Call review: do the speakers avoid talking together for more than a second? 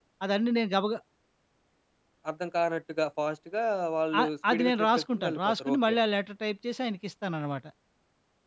No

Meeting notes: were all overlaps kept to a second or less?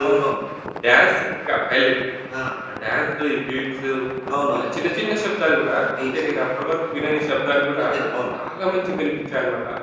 Yes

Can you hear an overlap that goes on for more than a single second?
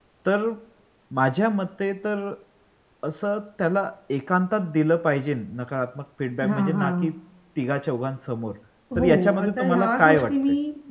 Yes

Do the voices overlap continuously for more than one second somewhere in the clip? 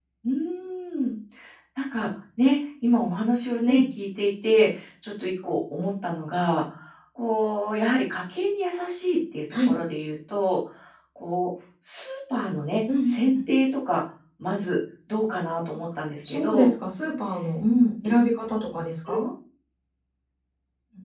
No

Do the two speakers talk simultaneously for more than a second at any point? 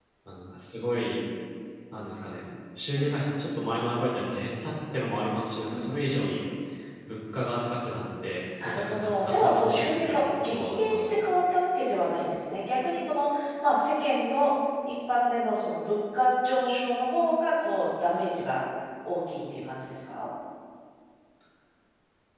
Yes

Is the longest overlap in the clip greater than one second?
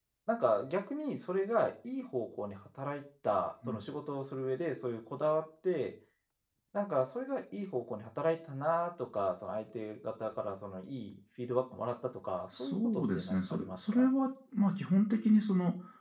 Yes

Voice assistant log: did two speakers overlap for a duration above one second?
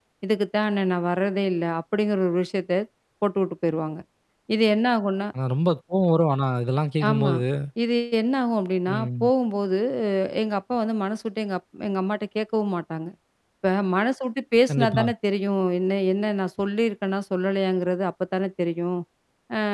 No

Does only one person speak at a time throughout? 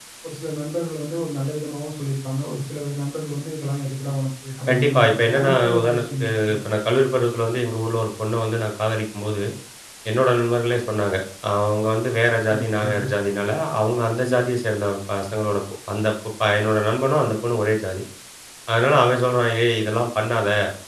No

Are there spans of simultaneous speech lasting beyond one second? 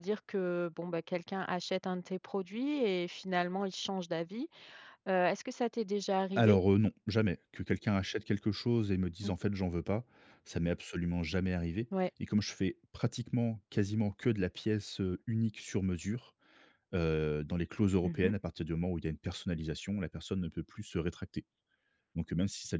No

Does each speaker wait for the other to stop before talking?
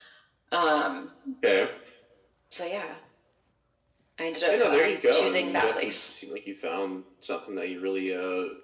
No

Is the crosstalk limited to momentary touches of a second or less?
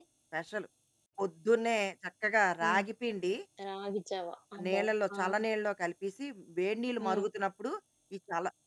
Yes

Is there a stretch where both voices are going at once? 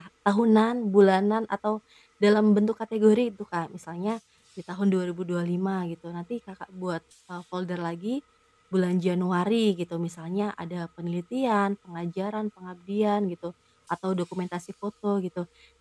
No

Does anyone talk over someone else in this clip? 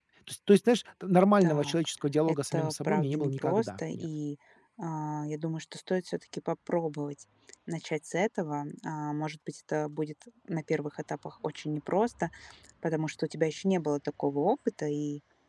Yes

